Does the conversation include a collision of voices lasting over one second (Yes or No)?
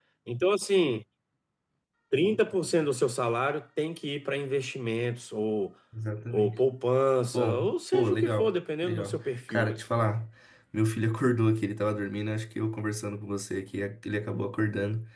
Yes